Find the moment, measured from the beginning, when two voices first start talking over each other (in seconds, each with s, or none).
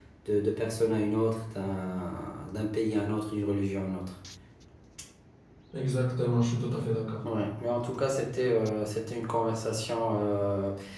none